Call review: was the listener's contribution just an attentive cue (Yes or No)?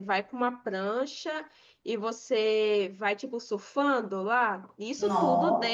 Yes